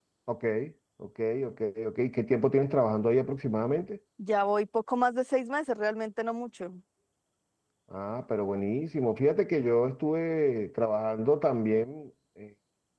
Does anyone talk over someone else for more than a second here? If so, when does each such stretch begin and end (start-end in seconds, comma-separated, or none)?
none